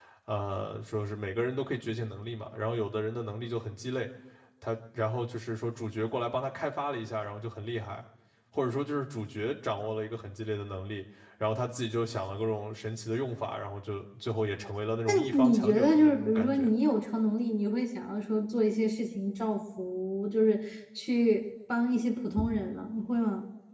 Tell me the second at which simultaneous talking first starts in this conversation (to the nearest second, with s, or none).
15 s